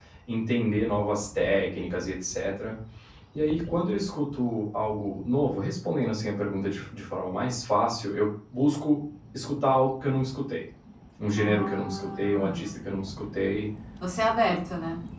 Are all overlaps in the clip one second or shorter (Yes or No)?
No